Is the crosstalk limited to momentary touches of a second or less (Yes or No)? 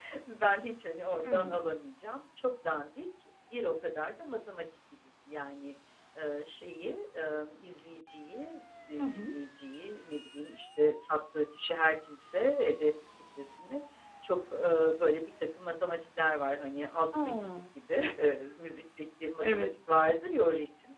Yes